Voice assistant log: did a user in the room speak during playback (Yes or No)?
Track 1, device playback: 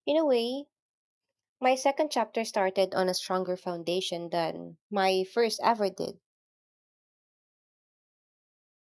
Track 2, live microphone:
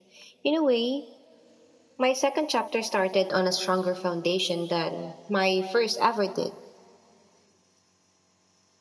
No